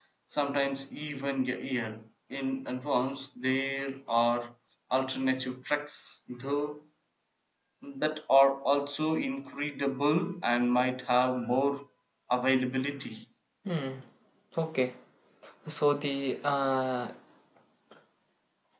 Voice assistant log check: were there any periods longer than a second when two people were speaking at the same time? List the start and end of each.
none

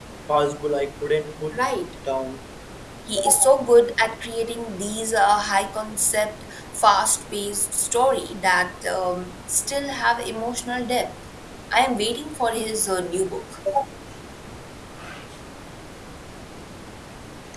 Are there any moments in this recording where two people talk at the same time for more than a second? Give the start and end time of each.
none

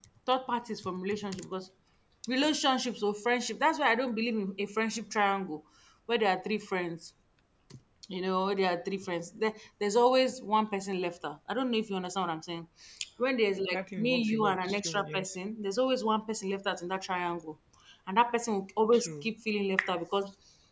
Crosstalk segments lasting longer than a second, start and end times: 13.7-15.3

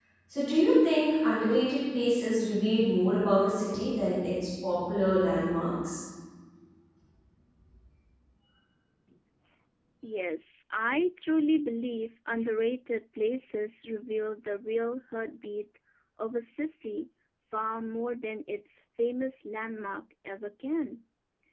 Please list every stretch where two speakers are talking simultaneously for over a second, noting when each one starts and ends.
none

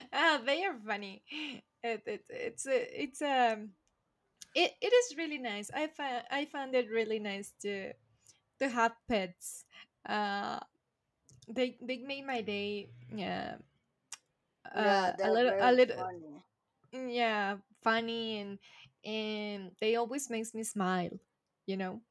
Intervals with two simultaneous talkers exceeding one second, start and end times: 14.8-16.0

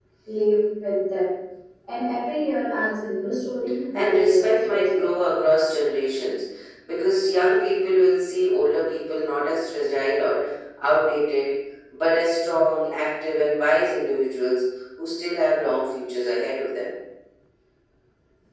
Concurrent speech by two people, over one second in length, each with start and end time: 3.9-5.2

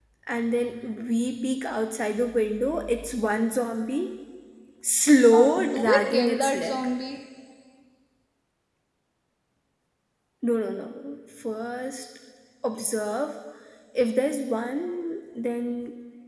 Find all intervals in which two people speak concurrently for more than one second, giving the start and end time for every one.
5.3-6.9

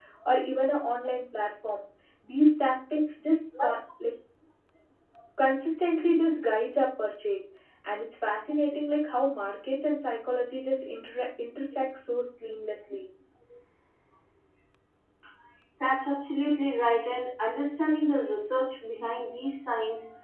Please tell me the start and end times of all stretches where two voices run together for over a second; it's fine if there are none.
none

